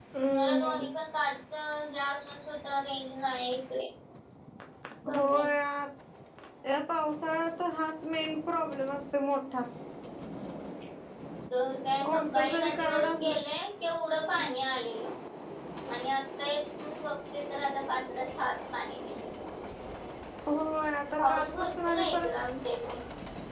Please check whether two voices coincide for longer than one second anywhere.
Yes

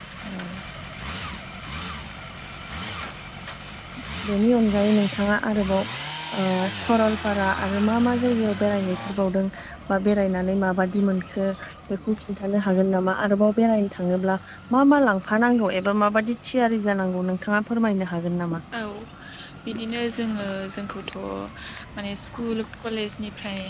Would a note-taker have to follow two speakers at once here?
No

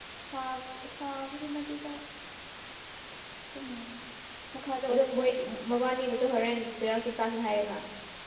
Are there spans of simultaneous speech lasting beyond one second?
No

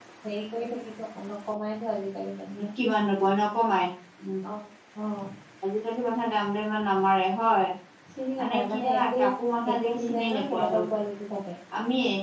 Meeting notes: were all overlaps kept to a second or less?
No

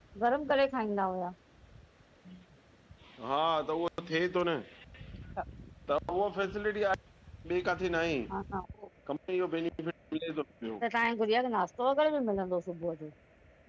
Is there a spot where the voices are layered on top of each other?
No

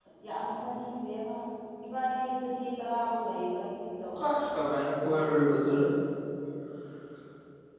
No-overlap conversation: Yes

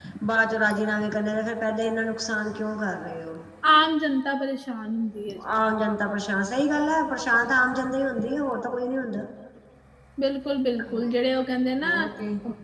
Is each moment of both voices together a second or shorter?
Yes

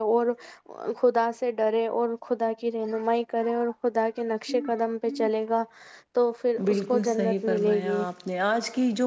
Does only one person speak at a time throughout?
No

